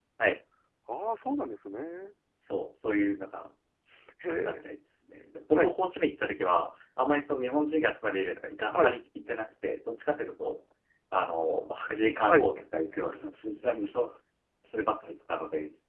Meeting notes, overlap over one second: none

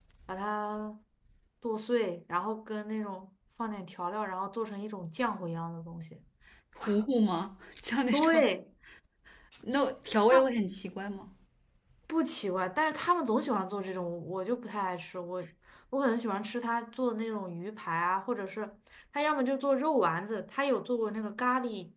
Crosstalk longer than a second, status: none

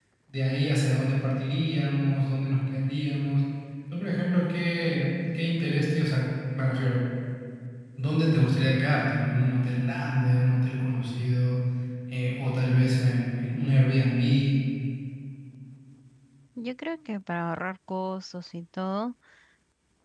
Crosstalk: none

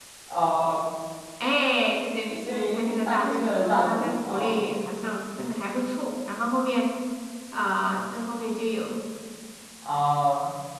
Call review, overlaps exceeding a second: present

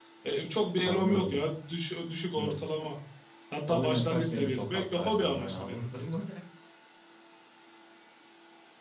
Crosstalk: present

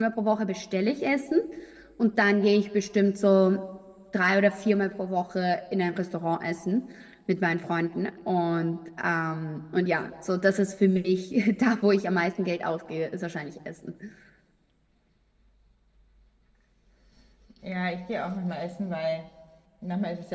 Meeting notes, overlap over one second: none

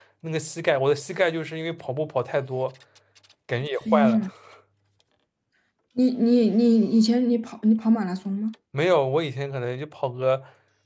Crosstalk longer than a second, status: none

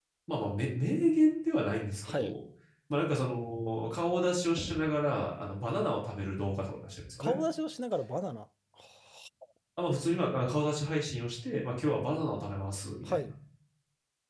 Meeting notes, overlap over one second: none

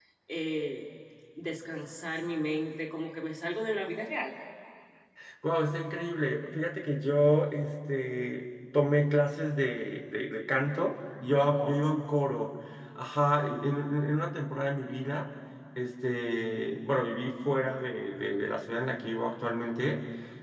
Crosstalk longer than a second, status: none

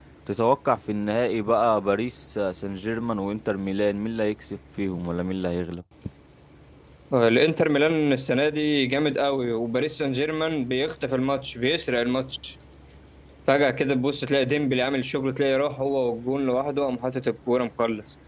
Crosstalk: none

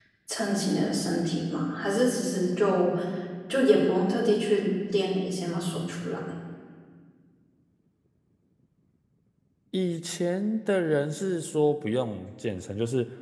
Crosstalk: none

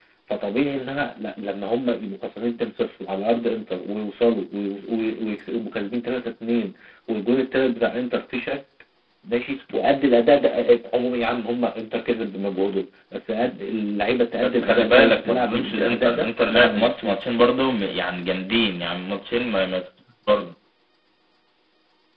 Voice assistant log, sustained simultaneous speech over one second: present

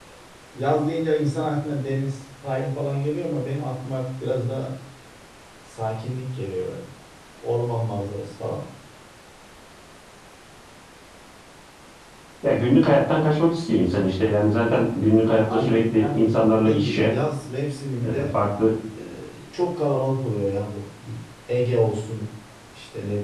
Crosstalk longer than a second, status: present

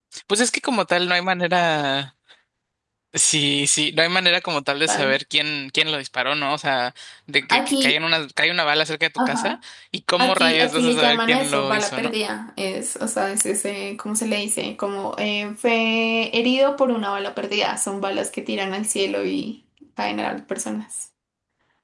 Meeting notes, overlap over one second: present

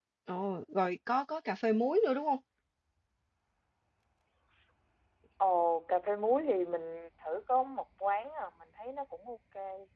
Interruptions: none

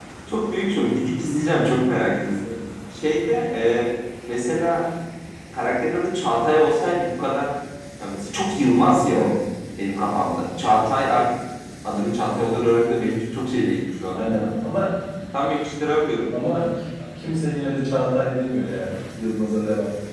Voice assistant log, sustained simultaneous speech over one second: none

